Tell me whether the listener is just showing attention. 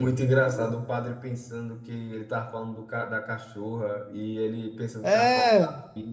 Yes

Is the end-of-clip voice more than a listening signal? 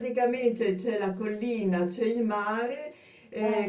No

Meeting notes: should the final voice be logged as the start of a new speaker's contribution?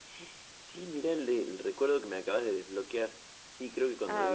No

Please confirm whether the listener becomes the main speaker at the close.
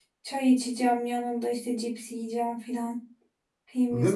Yes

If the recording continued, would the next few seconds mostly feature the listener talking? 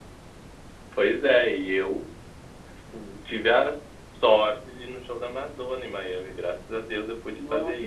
Yes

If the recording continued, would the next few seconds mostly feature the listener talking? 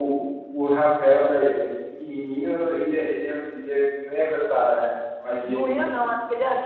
Yes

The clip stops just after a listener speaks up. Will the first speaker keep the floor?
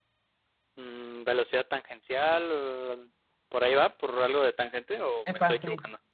No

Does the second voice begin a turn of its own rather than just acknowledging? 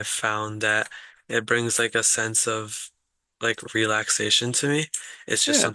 No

